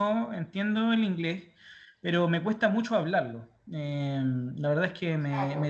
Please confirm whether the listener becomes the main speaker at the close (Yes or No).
No